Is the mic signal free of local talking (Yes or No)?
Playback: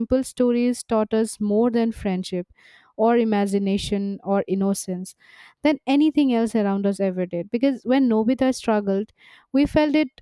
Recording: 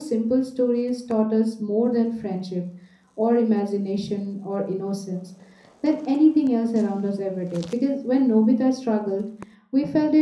Yes